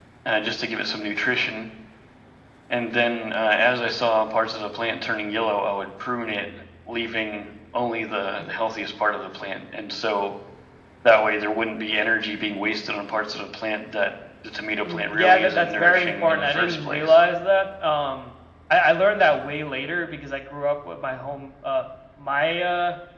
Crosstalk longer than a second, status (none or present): present